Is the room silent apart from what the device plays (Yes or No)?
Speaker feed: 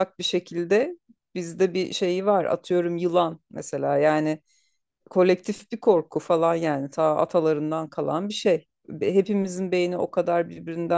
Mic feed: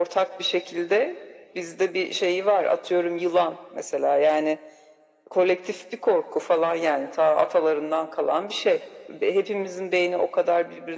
Yes